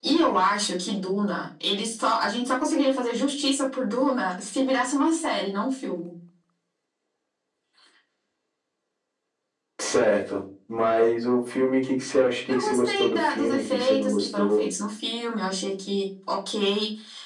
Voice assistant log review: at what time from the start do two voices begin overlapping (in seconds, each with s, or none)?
12.5 s